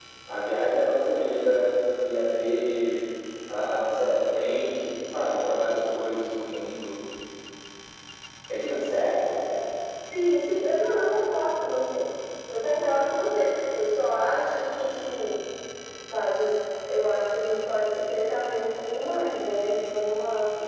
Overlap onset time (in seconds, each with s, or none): none